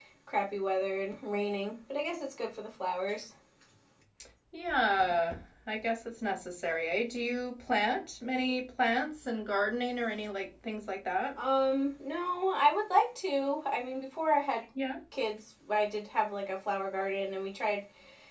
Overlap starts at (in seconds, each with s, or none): none